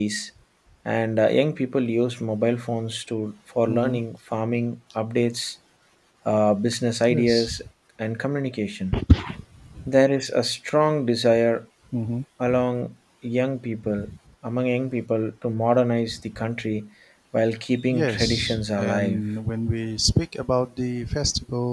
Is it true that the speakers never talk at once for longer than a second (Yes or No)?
No